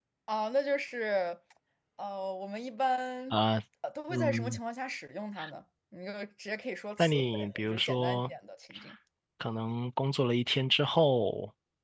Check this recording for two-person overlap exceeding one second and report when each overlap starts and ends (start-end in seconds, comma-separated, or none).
7.0-8.3